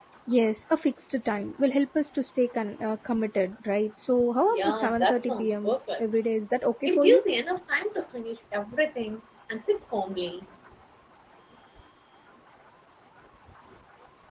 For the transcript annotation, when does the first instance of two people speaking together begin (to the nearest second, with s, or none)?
5 s